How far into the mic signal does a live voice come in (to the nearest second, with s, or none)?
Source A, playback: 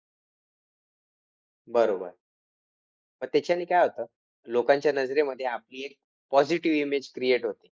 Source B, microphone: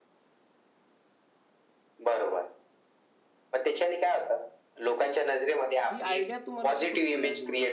6 s